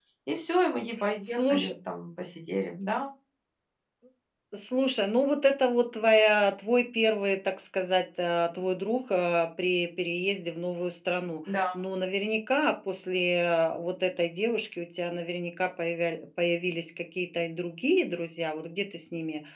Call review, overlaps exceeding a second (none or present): none